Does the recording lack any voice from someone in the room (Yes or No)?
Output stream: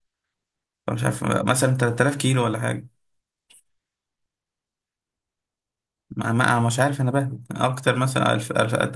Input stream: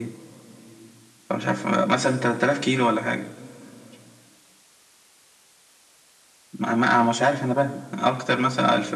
Yes